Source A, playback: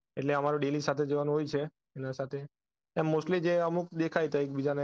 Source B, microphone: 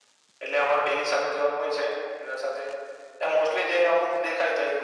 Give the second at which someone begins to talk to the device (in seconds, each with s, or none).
none